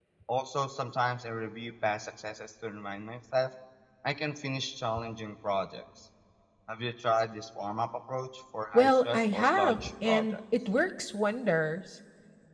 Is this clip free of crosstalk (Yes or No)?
No